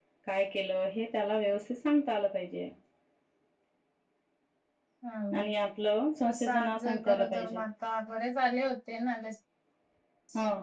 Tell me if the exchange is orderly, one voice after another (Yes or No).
No